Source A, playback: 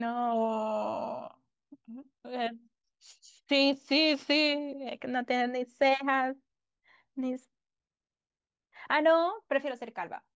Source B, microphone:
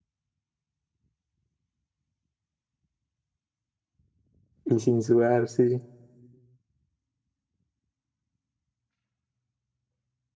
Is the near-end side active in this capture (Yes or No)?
Yes